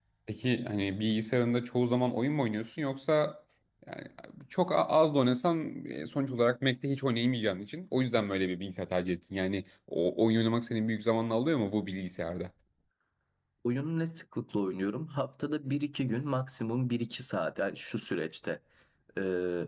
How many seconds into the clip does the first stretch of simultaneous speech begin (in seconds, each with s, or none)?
none